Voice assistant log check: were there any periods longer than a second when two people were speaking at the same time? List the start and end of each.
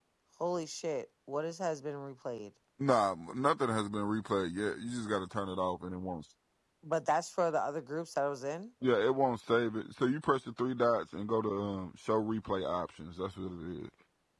none

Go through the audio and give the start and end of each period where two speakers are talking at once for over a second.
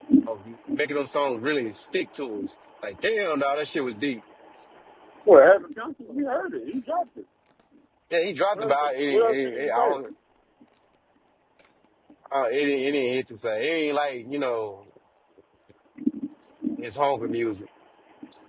8.6-10.0

